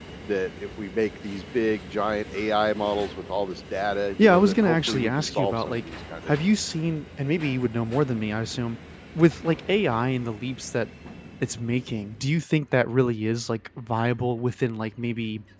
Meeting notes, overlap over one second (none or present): present